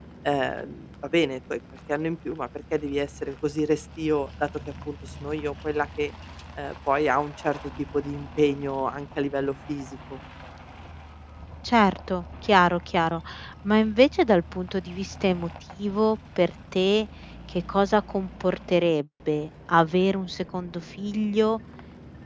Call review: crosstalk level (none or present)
none